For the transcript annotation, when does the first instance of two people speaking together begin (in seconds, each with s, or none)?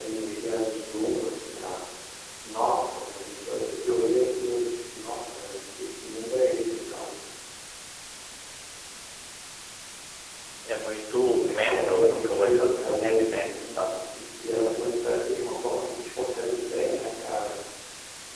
11.5 s